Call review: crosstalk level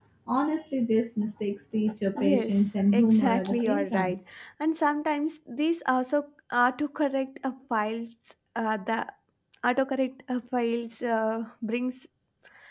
present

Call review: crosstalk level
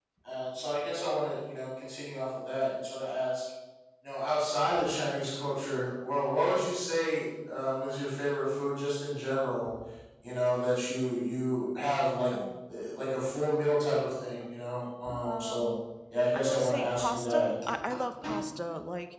present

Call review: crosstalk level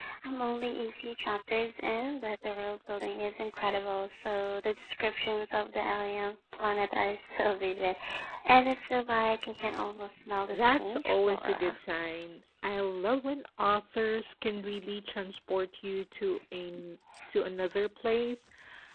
present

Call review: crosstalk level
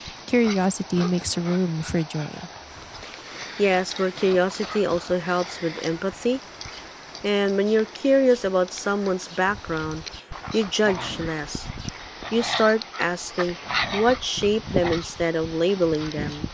none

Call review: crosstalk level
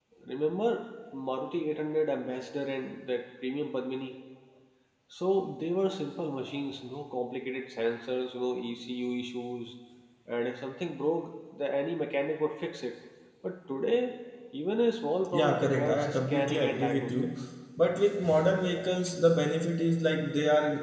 present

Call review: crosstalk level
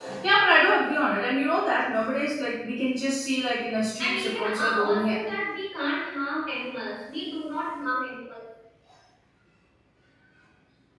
present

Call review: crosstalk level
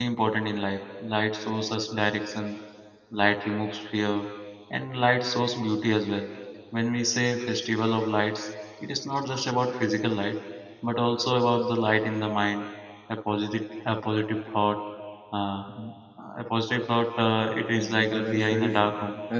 present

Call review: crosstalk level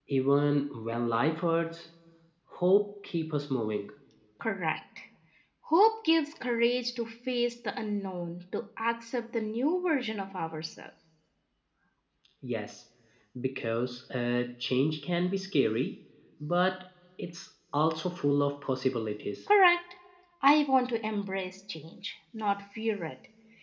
none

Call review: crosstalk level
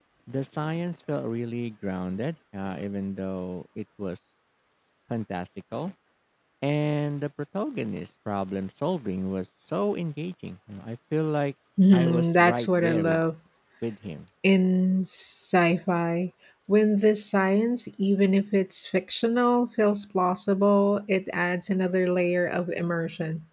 present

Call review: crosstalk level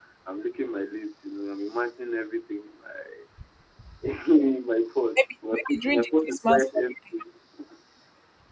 present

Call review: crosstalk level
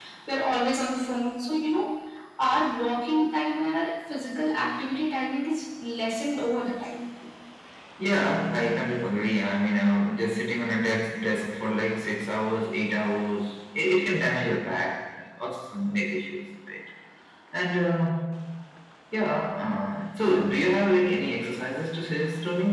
none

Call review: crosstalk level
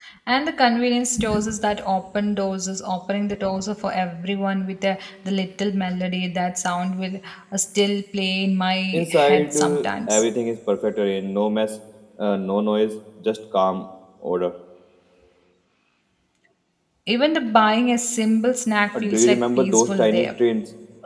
present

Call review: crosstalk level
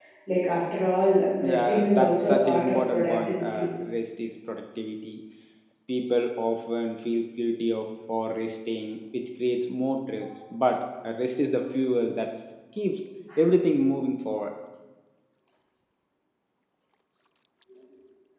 present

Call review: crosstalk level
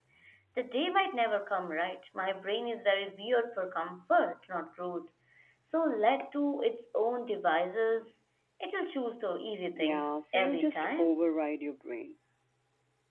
present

